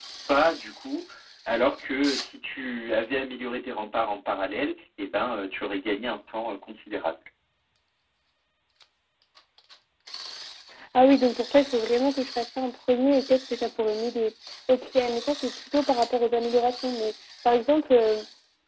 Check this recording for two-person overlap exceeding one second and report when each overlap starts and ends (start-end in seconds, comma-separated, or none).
none